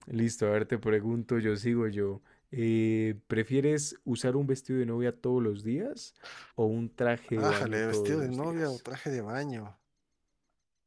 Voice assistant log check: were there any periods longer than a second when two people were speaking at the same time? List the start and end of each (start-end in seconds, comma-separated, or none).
7.4-8.8